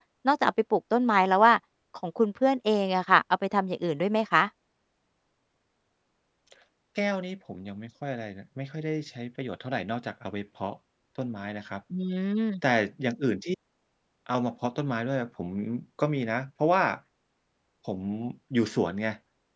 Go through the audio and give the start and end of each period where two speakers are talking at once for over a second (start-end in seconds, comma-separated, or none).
none